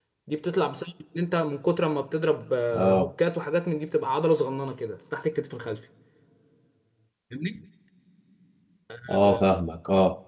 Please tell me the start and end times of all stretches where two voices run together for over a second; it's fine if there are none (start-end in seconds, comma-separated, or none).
none